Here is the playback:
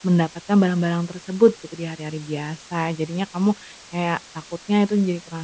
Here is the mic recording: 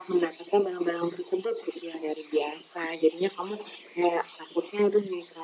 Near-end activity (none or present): none